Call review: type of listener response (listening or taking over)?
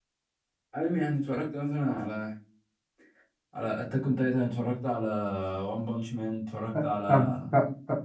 taking over